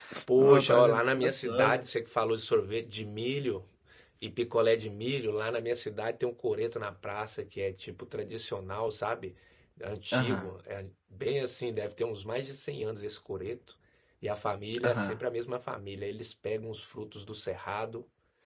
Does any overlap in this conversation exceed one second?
Yes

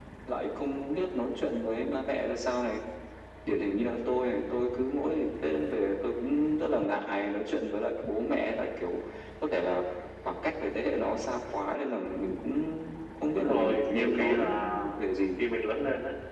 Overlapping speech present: Yes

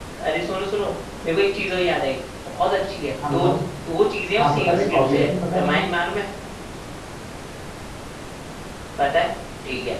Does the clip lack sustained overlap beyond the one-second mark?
No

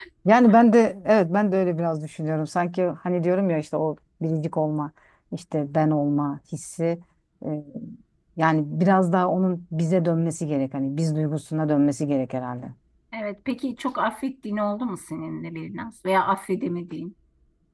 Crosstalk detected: No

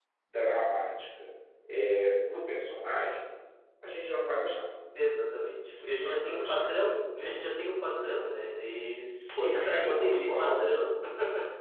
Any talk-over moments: Yes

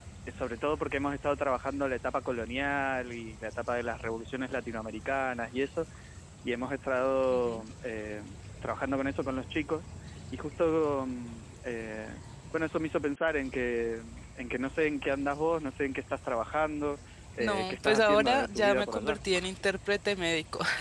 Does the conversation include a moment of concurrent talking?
Yes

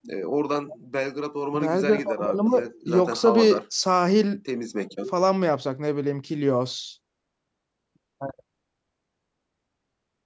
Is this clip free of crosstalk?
No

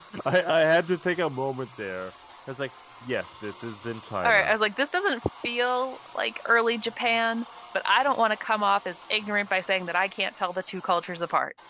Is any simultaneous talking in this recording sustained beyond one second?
No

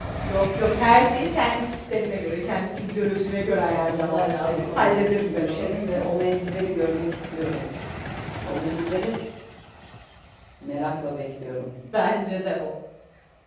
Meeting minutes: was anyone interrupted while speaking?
Yes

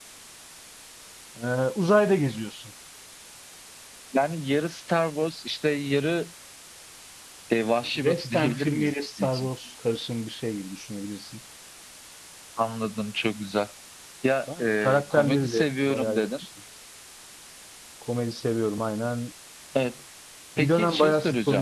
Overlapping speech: Yes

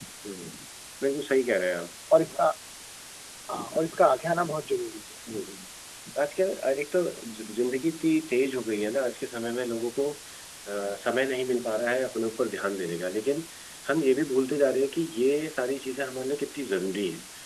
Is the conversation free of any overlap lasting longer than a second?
Yes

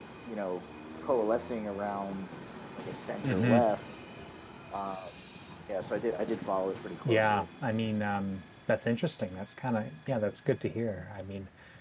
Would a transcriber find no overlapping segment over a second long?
Yes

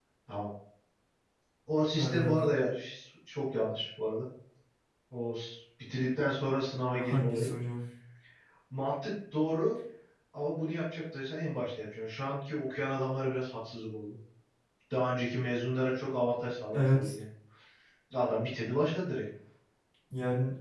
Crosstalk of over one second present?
No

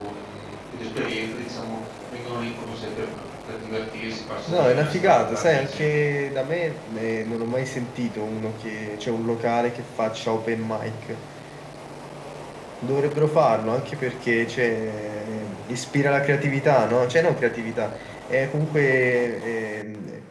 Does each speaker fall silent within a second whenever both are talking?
No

